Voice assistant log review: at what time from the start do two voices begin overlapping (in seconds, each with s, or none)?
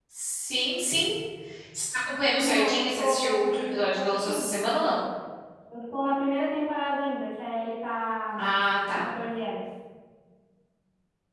2.4 s